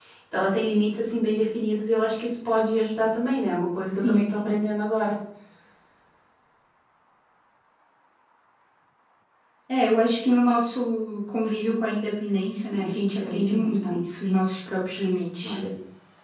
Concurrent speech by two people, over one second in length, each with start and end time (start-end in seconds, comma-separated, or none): 12.7-14.0